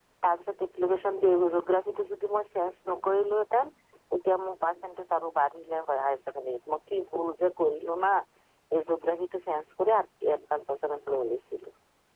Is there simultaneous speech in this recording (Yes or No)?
No